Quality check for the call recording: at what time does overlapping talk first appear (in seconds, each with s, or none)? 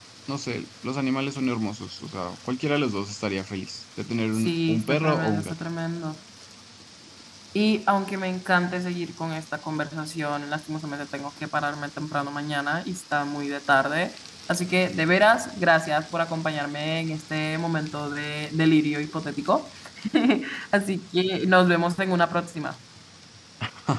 4.3 s